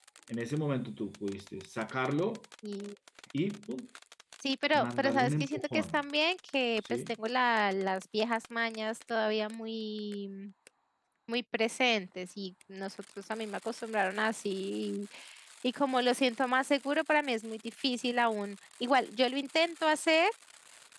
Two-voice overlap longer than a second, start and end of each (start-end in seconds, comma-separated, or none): 4.7-6.0